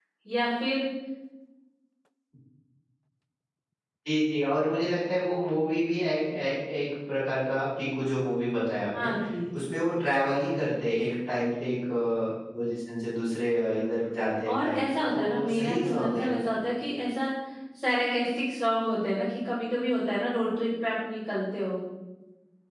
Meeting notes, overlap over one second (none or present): present